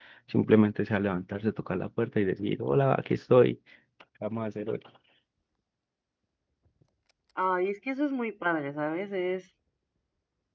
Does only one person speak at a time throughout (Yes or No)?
Yes